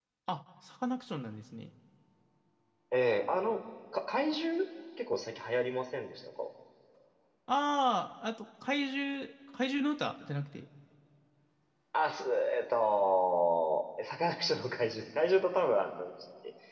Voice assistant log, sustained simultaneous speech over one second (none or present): none